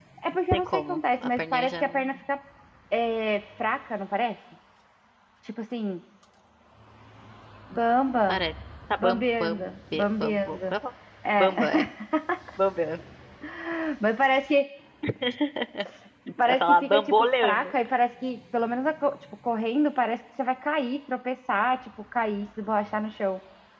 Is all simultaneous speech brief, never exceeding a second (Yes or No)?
No